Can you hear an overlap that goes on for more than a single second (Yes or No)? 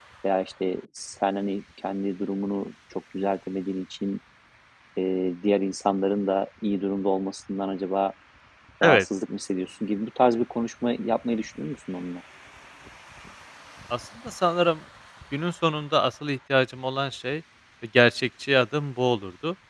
No